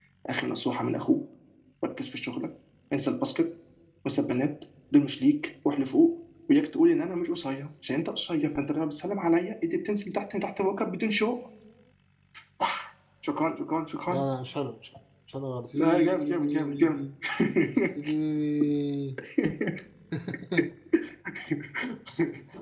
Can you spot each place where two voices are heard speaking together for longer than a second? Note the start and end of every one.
15.8-17.0

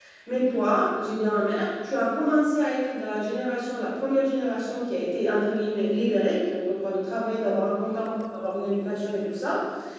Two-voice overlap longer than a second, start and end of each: none

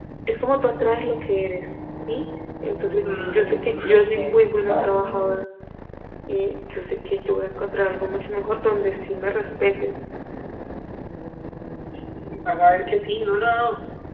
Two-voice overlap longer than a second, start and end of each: 3.3-4.9

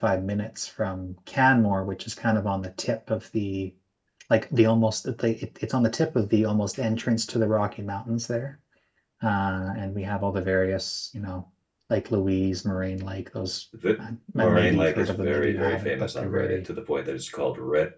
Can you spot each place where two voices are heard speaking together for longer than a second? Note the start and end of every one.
14.4-16.6

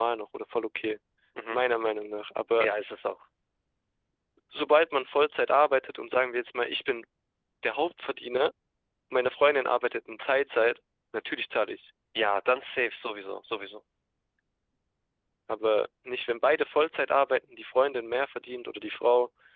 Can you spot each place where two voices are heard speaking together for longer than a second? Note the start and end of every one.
none

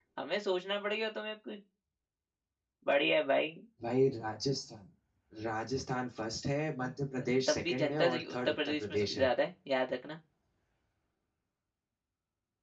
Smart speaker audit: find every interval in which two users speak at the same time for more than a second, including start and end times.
7.5-9.3

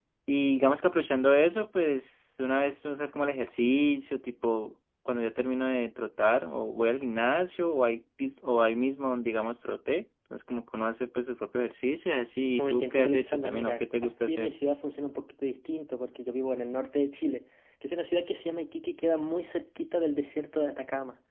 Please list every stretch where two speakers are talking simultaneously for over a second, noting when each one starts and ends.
12.6-14.5

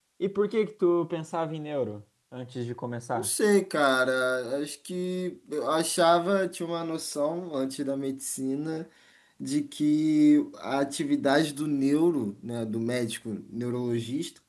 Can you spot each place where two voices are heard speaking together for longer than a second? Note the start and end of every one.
none

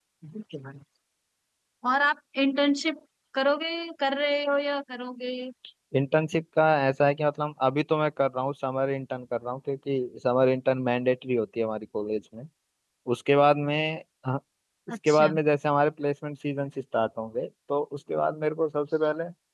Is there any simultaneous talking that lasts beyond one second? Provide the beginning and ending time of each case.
none

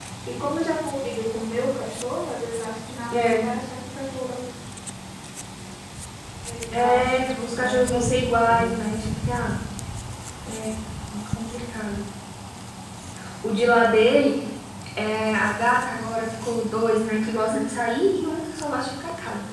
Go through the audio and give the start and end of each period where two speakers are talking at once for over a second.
6.7-8.8

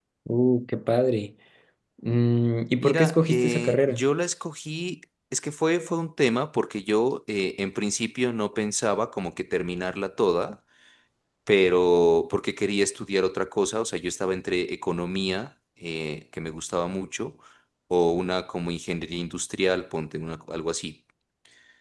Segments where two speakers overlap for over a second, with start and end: 2.8-4.0

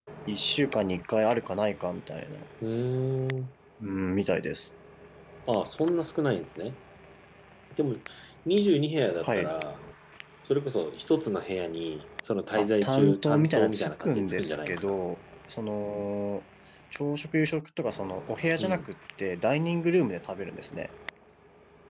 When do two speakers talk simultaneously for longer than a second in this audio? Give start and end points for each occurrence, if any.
12.6-14.8

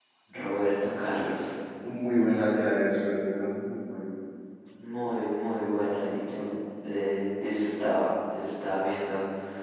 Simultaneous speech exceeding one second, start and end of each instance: none

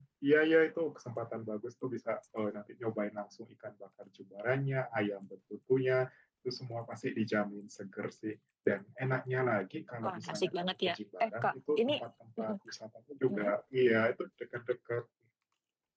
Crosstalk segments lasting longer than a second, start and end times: 10.0-11.9

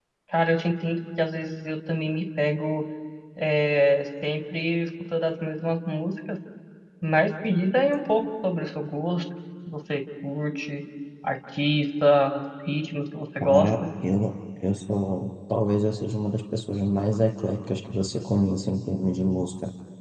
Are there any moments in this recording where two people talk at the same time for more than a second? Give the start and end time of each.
none

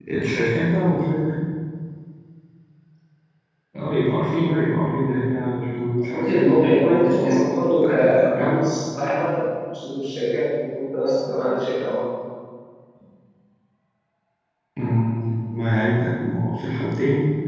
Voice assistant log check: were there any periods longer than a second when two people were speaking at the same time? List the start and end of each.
6.2-8.6

